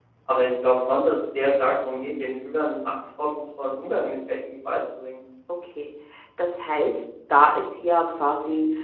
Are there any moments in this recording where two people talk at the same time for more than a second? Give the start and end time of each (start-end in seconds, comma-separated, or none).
none